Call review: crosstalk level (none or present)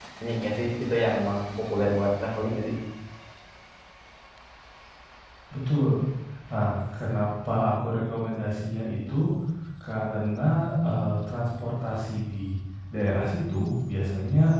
none